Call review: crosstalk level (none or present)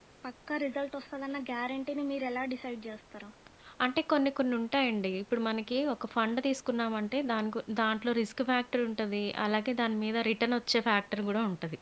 none